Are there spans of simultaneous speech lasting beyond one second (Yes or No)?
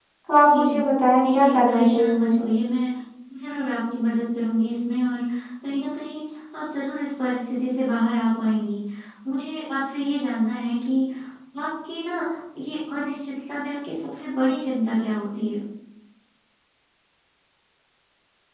Yes